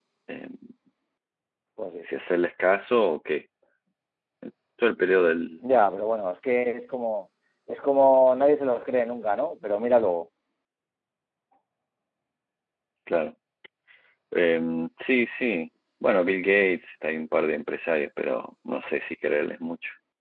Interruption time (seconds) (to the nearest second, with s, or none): none